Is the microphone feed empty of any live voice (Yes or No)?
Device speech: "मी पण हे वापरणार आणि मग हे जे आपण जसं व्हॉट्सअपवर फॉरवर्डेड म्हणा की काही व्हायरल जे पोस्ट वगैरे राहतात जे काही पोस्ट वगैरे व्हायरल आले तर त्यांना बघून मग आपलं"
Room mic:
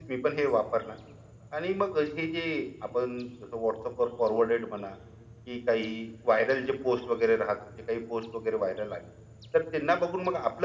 Yes